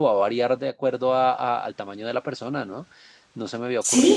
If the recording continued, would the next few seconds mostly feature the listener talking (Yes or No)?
Yes